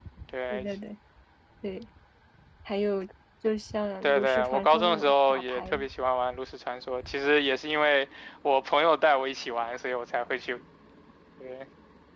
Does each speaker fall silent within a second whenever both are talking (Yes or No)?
No